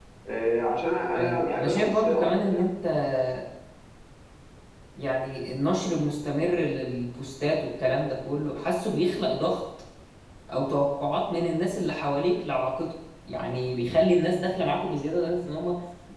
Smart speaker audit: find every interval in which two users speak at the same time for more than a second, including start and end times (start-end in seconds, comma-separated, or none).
1.1-2.7